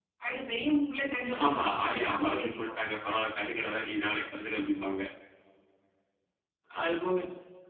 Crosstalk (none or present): present